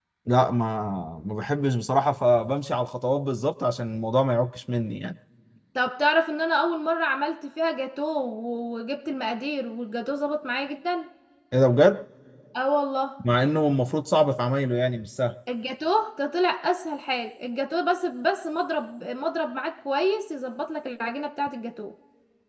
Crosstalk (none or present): none